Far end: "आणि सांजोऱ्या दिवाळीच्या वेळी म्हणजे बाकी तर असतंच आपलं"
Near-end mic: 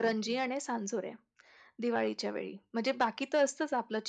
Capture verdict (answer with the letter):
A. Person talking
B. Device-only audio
B